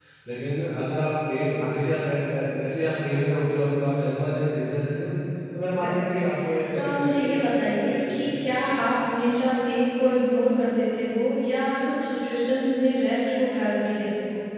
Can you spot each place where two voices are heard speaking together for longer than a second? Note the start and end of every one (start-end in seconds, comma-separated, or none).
6.7-8.6